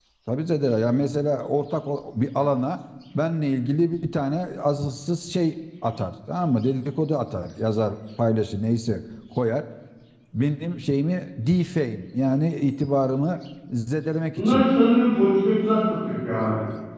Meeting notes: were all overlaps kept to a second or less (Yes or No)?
Yes